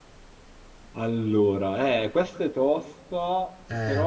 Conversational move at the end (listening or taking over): listening